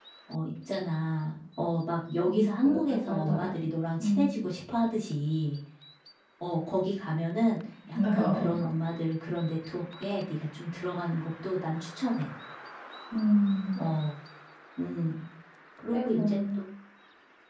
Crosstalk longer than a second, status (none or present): present